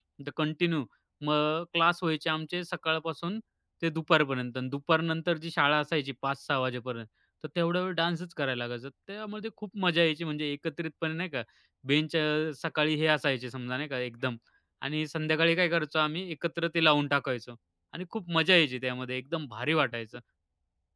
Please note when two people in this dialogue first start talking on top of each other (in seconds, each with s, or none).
none